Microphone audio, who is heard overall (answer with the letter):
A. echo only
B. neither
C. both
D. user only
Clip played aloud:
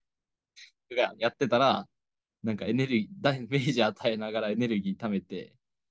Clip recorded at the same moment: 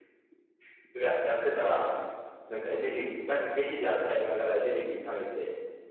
A